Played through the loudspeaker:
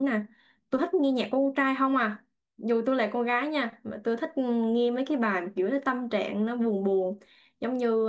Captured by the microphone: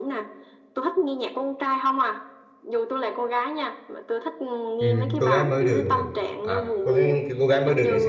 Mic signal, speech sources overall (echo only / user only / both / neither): both